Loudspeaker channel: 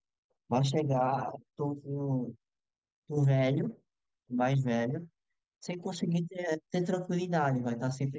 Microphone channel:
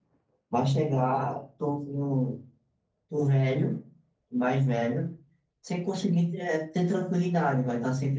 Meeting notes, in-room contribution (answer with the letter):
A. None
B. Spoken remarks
A